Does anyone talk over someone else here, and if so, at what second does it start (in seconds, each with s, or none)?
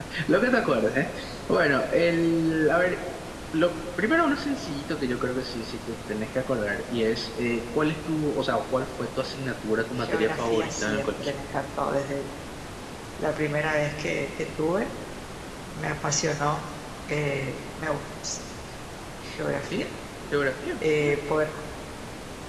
10.0 s